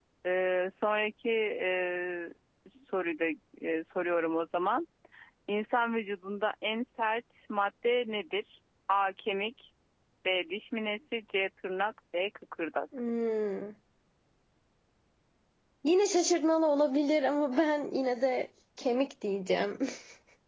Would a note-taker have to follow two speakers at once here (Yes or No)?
No